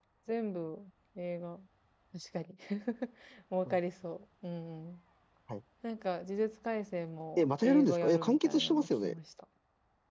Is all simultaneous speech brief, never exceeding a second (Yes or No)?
No